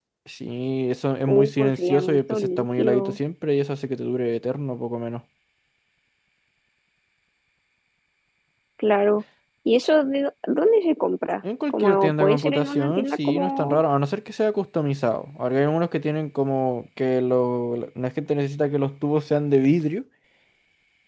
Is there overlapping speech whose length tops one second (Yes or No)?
Yes